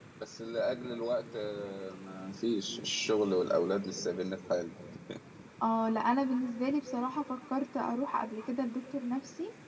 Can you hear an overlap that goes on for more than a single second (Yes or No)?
No